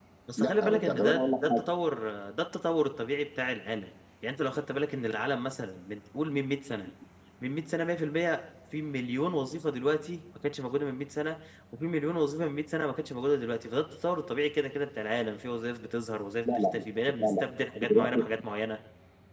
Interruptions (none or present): present